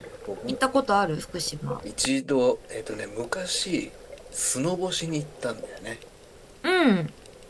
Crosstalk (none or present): none